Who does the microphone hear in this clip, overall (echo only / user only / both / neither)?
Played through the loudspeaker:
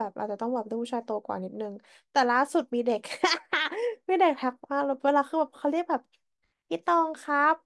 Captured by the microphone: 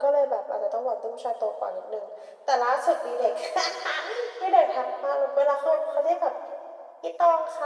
echo only